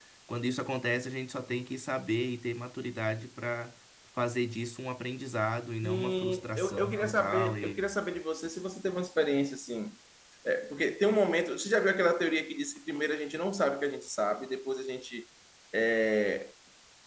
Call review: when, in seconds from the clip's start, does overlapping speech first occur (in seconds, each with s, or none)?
5.8 s